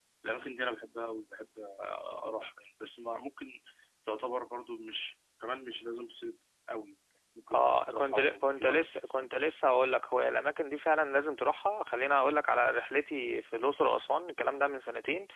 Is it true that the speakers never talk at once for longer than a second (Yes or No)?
No